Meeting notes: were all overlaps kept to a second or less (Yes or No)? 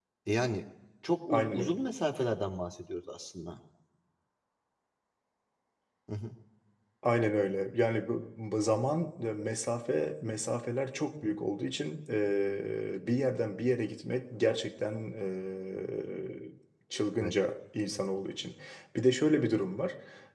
Yes